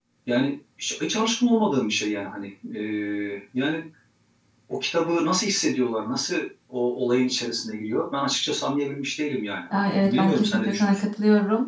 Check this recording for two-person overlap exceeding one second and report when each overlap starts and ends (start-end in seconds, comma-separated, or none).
9.8-11.0